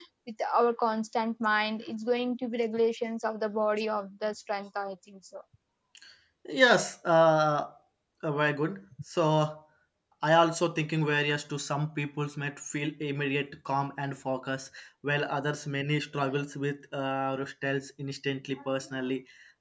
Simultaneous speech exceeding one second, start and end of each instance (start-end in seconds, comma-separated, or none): none